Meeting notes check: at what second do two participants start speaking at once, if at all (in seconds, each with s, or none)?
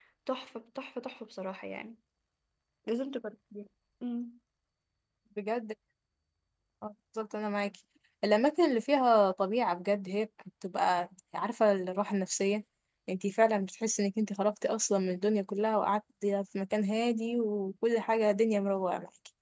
none